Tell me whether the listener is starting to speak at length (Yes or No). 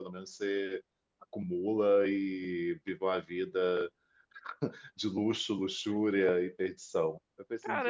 Yes